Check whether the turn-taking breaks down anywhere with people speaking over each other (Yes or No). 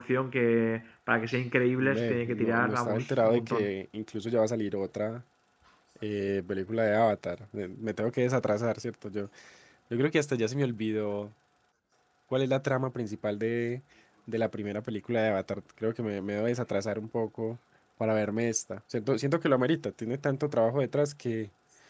Yes